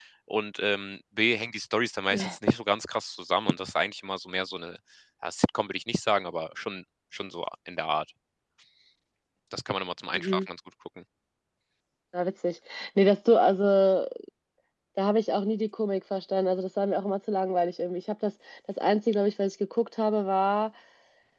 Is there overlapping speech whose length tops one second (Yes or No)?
No